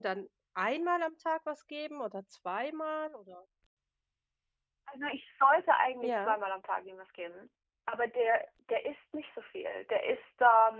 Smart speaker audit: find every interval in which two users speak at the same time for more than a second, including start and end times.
none

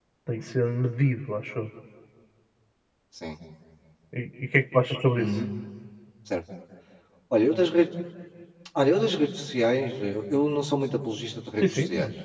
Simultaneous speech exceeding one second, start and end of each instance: none

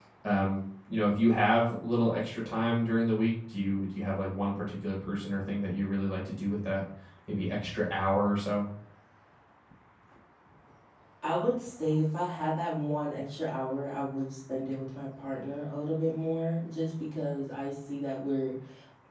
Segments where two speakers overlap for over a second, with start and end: none

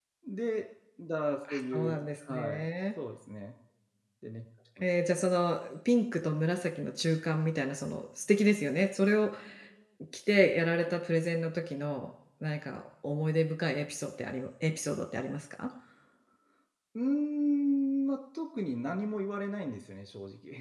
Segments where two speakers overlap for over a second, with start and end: 1.5-2.7

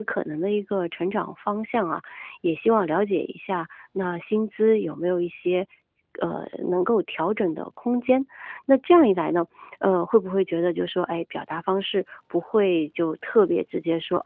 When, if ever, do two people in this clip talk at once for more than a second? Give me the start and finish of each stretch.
none

